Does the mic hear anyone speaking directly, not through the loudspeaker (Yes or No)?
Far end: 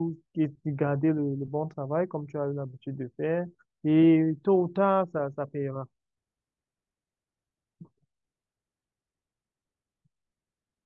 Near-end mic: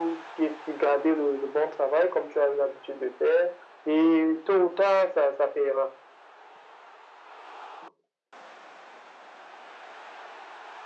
No